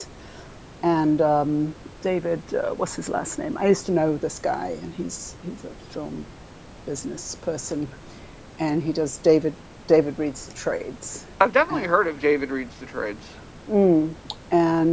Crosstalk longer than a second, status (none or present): none